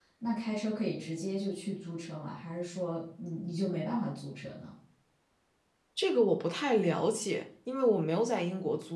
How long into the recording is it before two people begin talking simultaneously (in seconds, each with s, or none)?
none